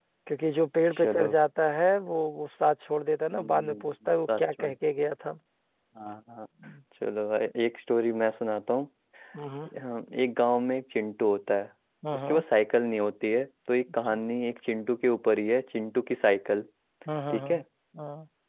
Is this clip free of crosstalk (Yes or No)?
No